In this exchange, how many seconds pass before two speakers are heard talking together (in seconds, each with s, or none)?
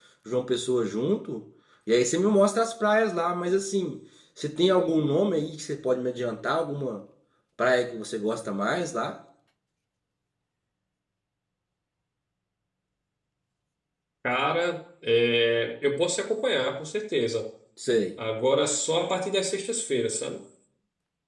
none